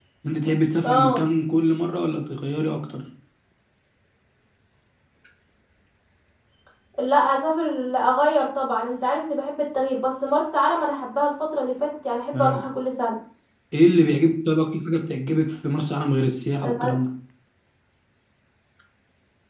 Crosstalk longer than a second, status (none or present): none